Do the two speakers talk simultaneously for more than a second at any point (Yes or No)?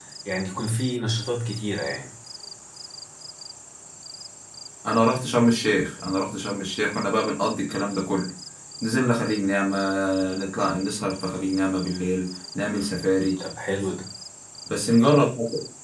No